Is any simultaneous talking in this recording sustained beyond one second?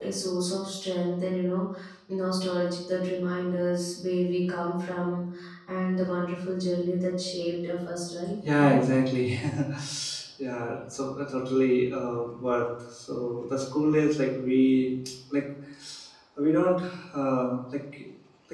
No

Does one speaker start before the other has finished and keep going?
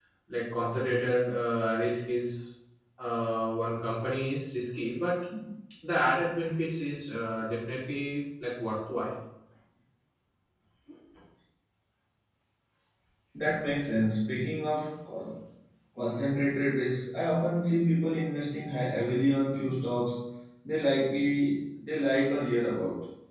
No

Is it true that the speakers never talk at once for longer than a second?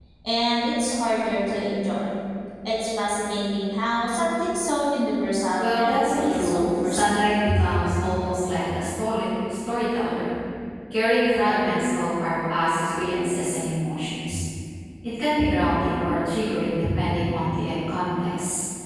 No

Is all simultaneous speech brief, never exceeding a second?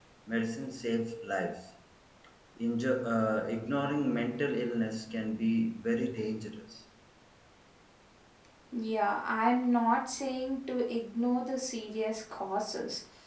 Yes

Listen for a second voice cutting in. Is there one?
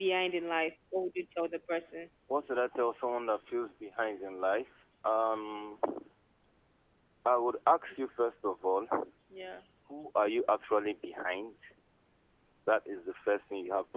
No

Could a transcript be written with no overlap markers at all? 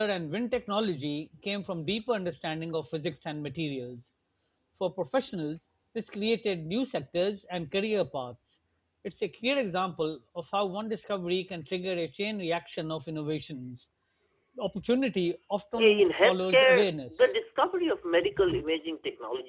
No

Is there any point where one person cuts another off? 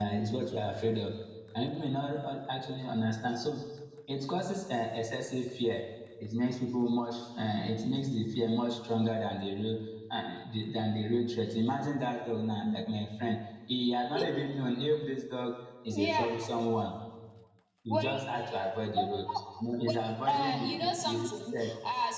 Yes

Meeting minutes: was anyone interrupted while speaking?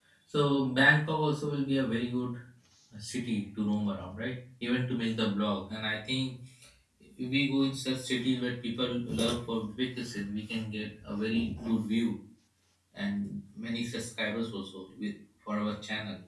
No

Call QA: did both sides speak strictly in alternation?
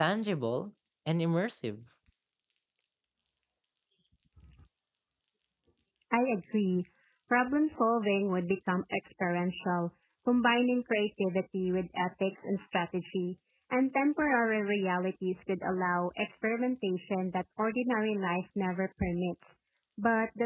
Yes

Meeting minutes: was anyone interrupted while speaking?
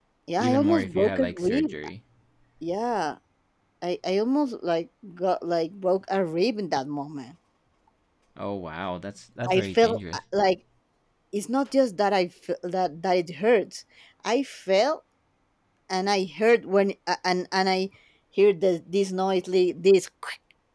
Yes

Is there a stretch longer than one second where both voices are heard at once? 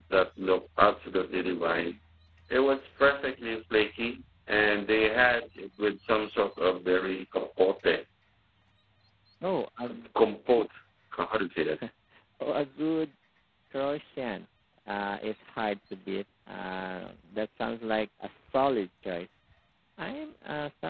No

